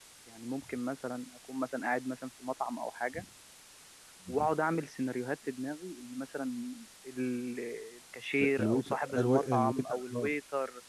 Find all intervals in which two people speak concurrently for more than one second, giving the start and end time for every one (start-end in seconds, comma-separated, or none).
8.6-10.3